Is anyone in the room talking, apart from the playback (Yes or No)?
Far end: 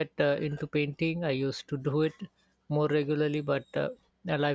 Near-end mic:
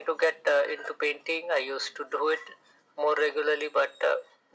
No